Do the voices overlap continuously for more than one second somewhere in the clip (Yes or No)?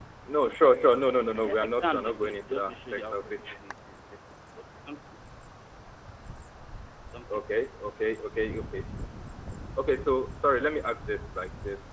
Yes